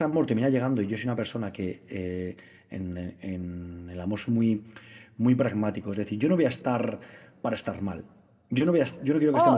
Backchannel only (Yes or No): No